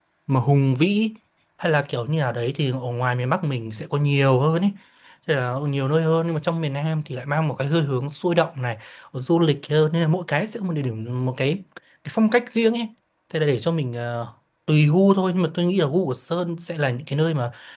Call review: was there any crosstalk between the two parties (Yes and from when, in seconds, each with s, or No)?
No